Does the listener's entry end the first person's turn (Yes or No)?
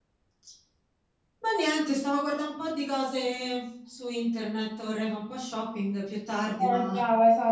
Yes